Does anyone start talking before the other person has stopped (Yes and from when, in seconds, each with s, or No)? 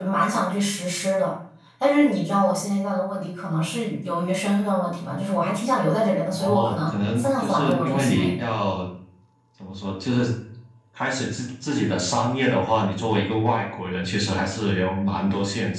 Yes, from 6.3 s